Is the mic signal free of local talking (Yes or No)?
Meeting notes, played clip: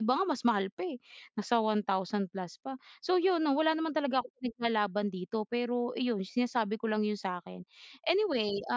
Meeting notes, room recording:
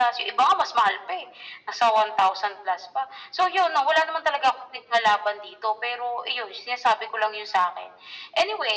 Yes